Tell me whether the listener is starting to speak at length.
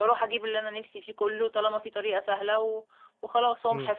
Yes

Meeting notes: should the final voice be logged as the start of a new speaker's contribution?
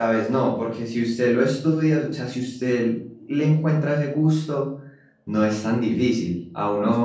No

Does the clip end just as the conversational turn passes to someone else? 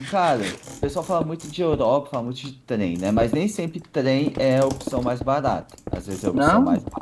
No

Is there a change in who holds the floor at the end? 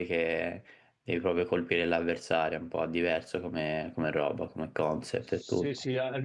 Yes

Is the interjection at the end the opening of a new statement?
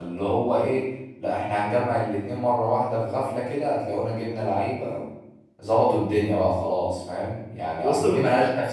No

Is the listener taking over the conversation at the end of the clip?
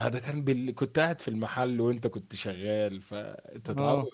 No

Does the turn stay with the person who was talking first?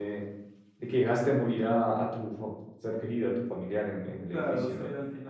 No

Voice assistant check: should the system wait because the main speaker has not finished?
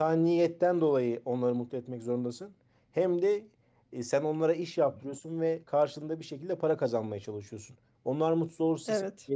Yes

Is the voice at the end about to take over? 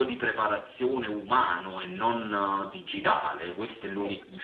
No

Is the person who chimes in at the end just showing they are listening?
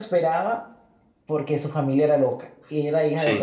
Yes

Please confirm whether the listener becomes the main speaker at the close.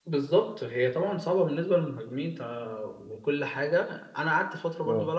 No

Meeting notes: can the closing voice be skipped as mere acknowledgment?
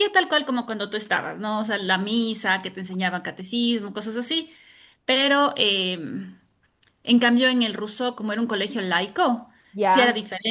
Yes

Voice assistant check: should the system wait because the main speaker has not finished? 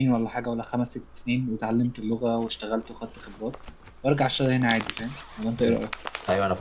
No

